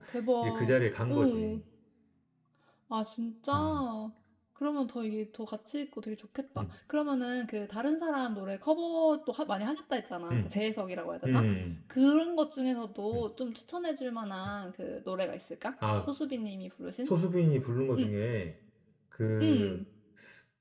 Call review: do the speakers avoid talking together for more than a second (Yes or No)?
Yes